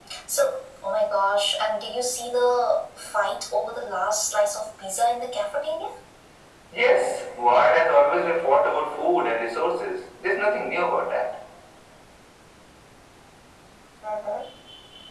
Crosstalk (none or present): none